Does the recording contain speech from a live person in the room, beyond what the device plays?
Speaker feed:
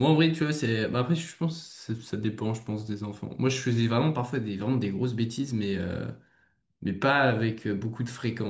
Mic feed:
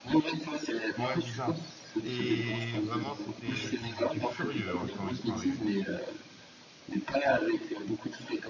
Yes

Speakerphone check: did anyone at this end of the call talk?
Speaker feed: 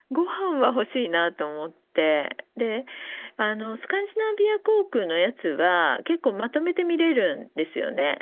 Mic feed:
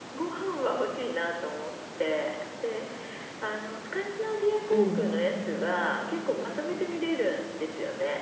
Yes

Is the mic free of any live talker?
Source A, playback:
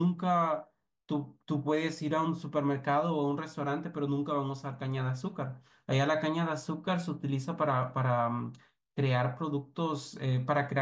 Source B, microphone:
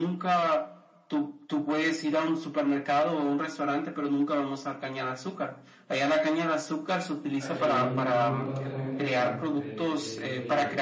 No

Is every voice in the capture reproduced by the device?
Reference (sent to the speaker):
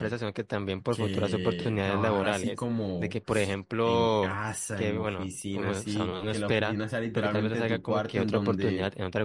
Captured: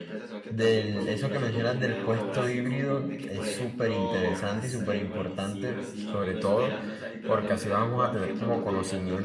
No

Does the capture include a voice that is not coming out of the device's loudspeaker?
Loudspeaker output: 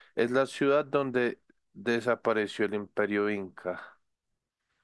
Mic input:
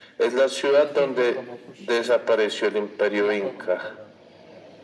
Yes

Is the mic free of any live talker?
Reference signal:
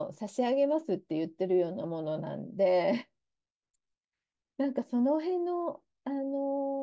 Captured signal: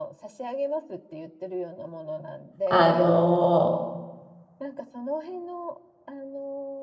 No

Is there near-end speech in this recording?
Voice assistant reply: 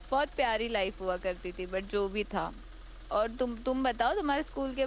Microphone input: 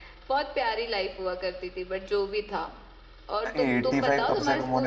Yes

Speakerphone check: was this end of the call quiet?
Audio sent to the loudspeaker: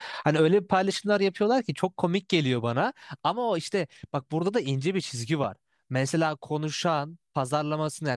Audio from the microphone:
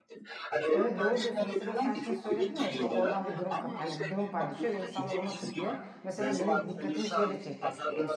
No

